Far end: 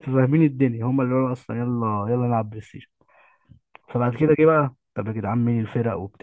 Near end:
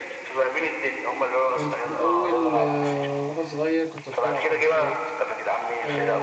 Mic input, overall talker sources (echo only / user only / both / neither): both